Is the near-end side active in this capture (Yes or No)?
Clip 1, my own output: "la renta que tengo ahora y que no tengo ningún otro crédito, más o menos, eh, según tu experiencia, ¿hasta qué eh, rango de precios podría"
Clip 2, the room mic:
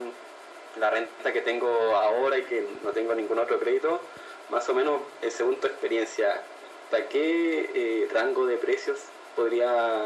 No